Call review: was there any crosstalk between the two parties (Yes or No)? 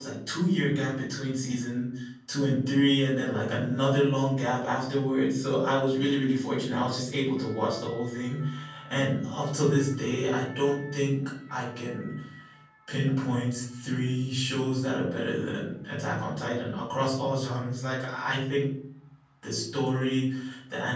No